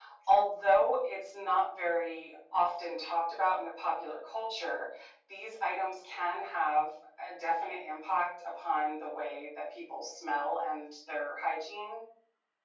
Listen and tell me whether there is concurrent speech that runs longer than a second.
No

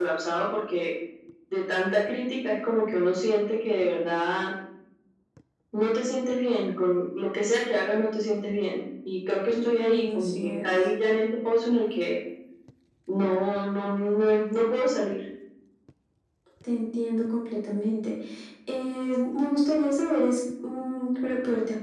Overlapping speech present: Yes, from 9.5 s

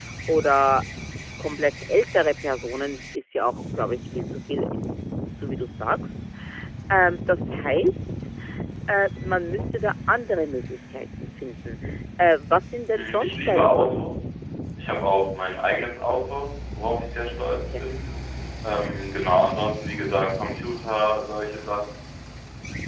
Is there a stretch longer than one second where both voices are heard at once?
Yes, from 12.9 s

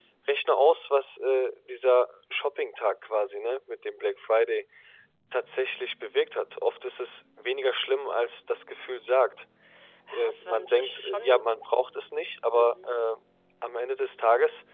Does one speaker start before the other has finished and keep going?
Yes, from 10.1 s

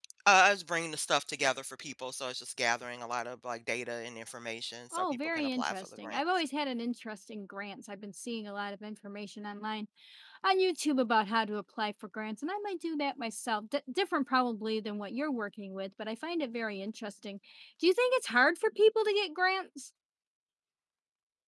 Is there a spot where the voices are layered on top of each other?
Yes, from 4.9 s

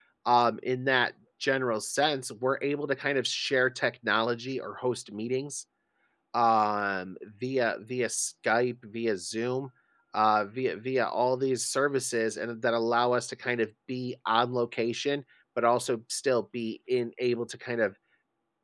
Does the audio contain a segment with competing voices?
No

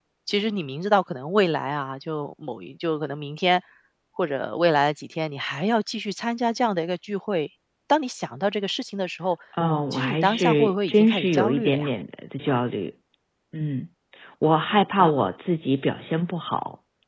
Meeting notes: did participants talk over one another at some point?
Yes, from 9.9 s

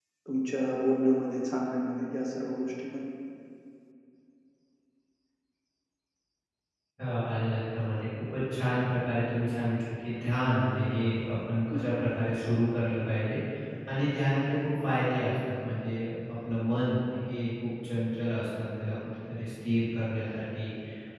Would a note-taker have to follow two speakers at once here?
No

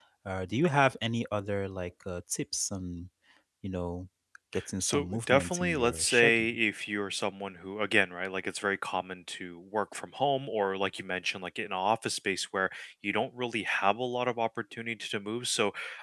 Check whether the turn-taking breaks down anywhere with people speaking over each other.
Yes, from 4.8 s

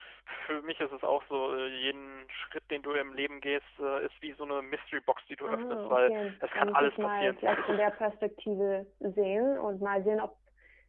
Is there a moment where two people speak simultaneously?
Yes, from 5.5 s

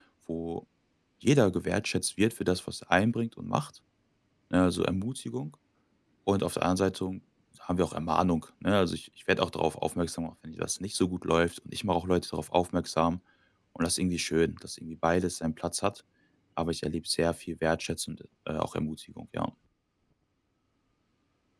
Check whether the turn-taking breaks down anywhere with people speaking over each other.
No

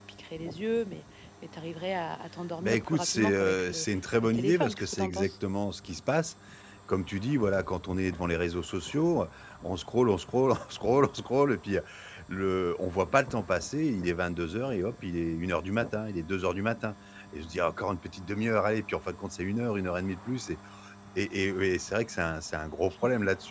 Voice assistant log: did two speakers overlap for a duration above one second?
Yes, from 2.6 s

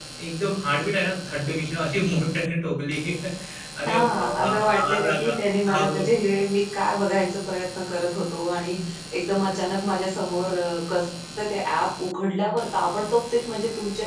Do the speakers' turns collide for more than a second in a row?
Yes, from 3.8 s

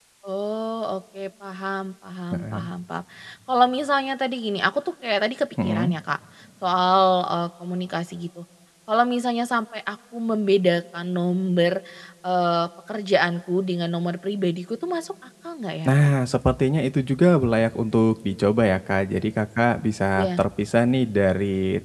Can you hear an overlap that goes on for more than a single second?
No

